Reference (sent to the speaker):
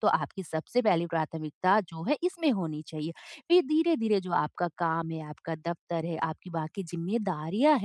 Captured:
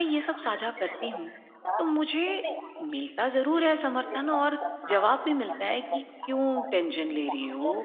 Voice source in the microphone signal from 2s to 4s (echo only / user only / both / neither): both